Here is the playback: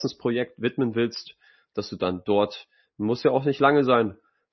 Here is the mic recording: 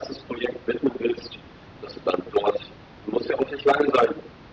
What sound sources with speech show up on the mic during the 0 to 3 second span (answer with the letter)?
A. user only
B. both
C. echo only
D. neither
C